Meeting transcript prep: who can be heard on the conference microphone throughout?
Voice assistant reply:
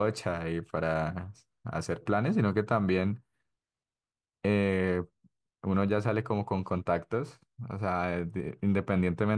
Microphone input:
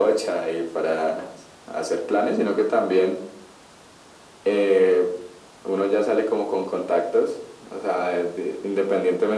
echo only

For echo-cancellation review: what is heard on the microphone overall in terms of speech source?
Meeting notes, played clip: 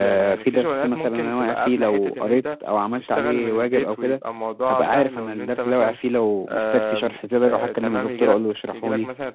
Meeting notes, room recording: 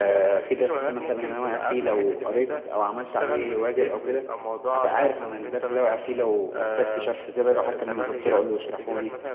echo only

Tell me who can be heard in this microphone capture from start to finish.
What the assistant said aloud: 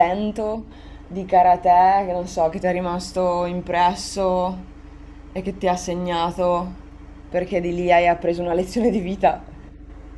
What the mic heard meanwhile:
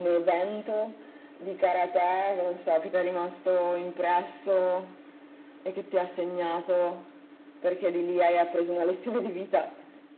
echo only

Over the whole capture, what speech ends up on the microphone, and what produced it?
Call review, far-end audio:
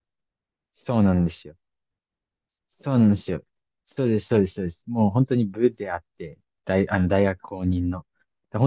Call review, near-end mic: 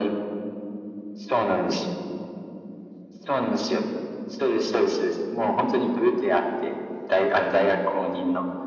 echo only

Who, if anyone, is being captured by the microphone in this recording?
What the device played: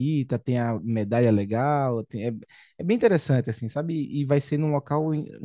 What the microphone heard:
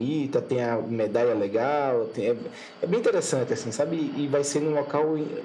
echo only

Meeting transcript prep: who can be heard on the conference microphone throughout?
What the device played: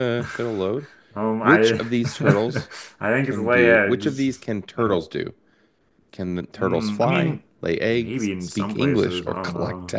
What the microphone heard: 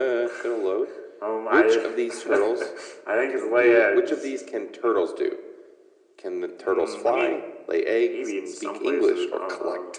echo only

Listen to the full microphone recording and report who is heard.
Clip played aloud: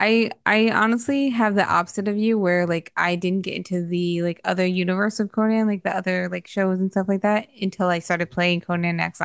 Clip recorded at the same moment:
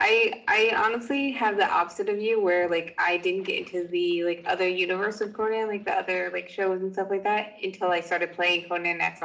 echo only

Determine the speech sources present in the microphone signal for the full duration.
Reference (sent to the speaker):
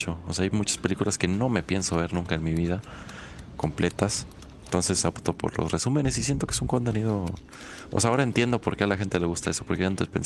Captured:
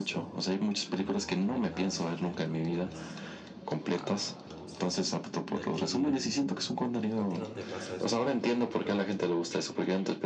both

